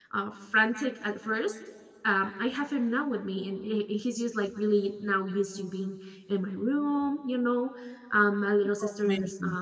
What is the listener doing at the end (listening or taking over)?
listening